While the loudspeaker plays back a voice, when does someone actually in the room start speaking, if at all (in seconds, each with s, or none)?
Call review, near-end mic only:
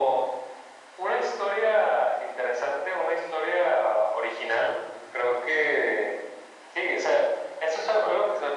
none